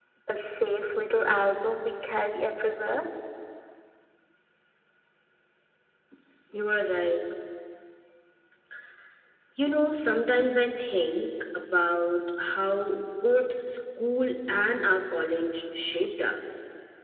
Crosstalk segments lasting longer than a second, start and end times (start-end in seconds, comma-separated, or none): none